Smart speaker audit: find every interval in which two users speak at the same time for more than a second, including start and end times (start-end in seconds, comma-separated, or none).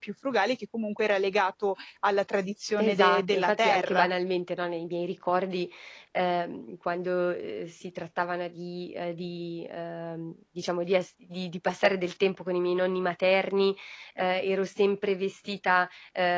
2.8-4.1